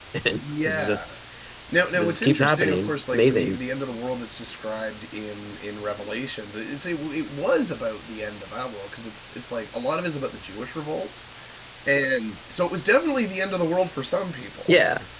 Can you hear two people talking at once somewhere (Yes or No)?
Yes